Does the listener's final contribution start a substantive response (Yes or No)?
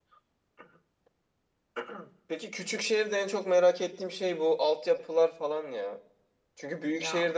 No